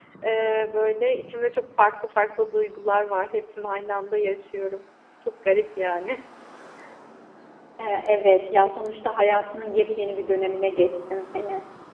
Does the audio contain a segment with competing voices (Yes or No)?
No